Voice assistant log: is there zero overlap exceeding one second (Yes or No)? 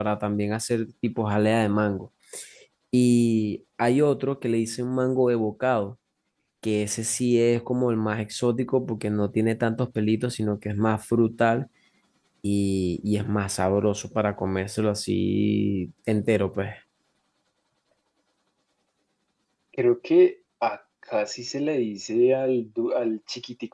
Yes